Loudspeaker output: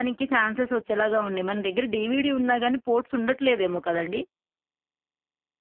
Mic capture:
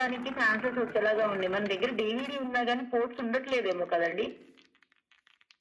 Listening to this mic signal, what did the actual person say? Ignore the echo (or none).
none